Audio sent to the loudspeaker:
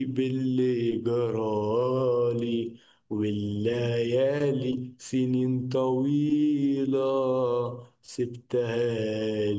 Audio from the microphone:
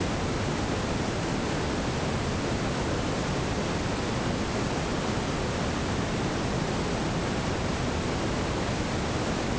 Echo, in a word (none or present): none